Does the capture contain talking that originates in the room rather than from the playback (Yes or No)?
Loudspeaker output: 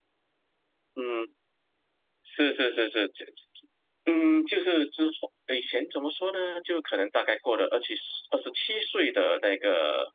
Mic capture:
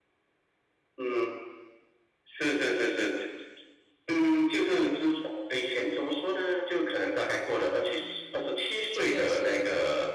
Yes